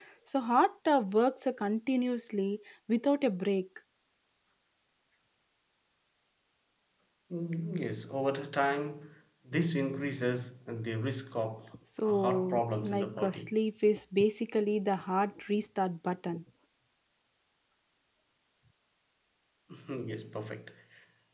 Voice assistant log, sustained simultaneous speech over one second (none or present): present